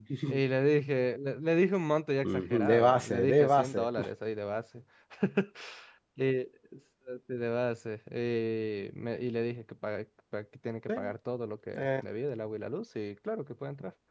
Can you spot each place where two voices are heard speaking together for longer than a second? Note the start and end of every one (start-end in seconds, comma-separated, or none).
2.2-3.9